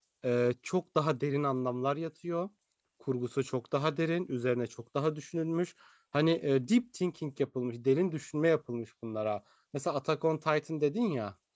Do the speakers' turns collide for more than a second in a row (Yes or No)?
No